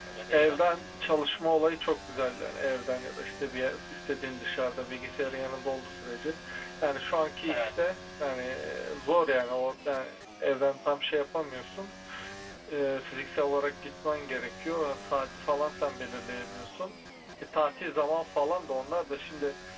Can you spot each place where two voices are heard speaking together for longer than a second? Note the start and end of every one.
none

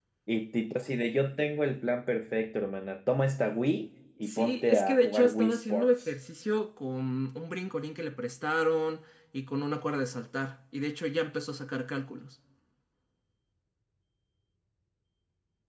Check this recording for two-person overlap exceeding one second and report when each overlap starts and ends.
4.3-6.1

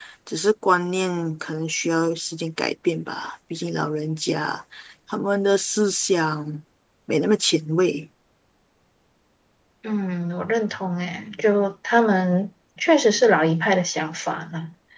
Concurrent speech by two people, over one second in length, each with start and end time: none

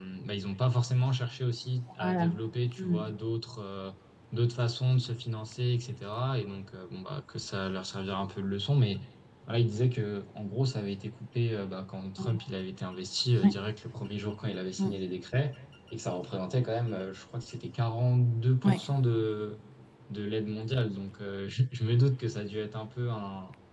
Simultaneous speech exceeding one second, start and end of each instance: none

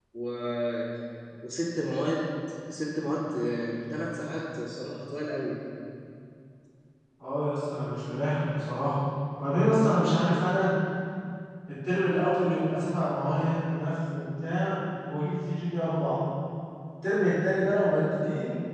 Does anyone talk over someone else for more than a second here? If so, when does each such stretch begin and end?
none

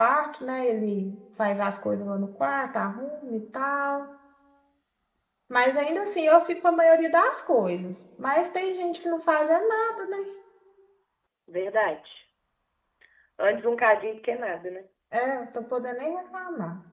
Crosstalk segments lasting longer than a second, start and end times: none

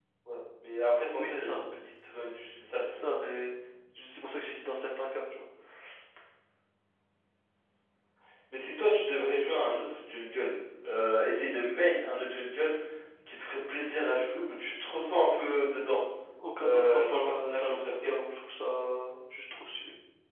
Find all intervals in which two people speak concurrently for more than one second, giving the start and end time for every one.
16.6-18.2

